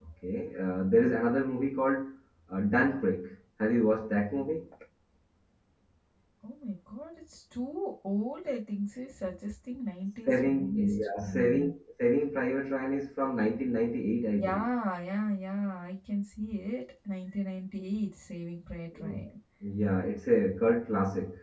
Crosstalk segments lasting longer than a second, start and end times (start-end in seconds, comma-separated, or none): 10.3-11.7